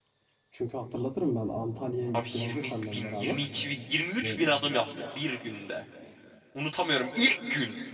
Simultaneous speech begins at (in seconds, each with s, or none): 2.1 s